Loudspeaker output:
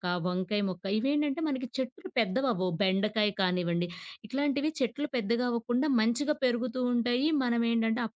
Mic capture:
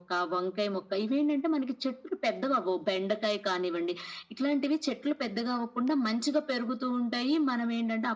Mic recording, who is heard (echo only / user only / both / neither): echo only